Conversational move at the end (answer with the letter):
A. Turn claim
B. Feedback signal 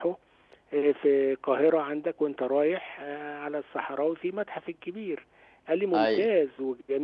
B